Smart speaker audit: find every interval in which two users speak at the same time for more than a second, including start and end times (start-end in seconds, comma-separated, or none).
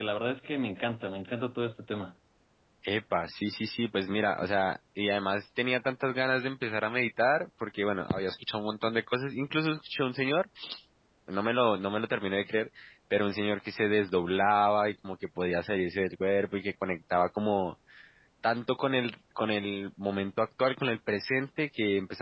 none